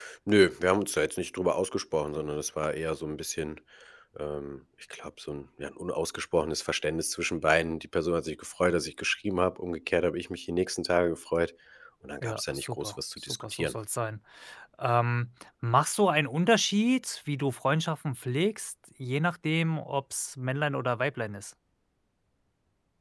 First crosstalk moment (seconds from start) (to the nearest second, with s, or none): 12 s